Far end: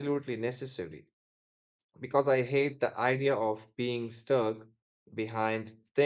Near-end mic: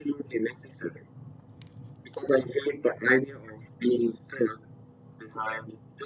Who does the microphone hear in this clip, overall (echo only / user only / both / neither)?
echo only